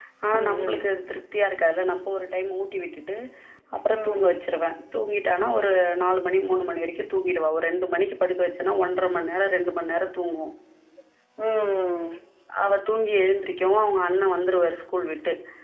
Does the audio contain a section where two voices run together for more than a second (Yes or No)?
No